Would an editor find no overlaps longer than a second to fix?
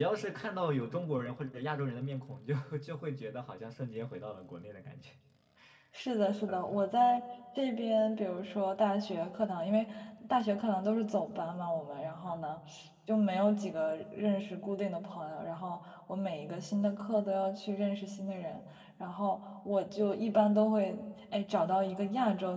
Yes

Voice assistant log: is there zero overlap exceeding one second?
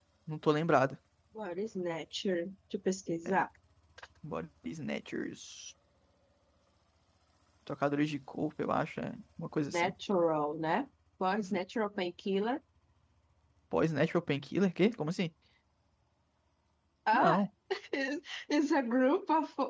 Yes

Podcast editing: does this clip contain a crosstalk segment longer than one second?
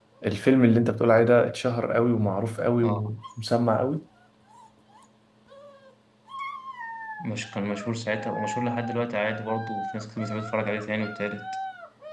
No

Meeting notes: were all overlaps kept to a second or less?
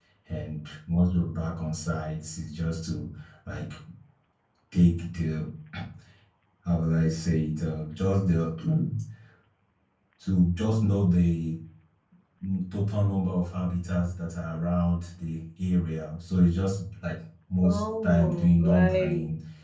No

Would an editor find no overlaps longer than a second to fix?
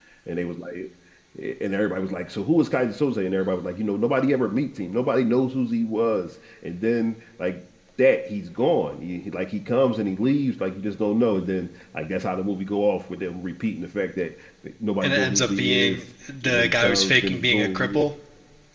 No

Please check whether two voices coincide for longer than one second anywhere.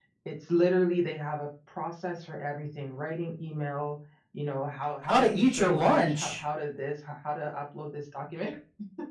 Yes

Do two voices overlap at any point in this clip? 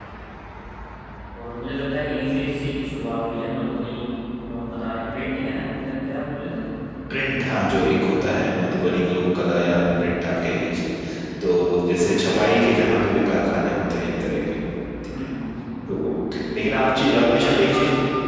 Yes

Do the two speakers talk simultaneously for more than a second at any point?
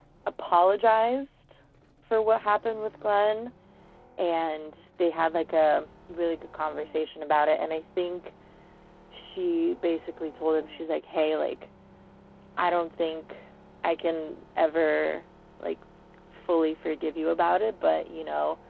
No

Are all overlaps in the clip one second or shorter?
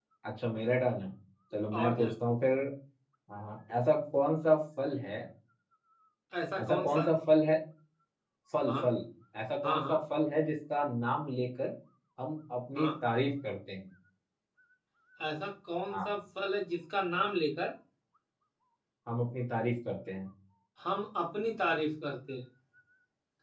Yes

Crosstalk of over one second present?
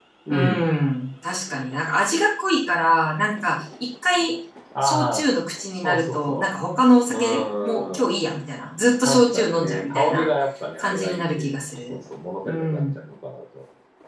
Yes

